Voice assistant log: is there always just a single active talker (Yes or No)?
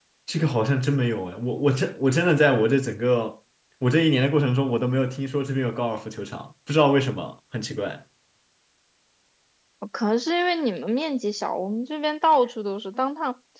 Yes